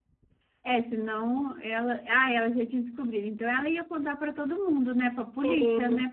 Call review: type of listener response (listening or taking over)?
taking over